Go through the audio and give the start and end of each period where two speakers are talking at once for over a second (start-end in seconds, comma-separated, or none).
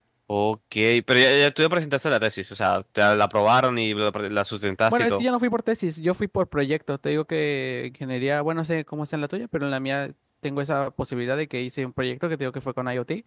none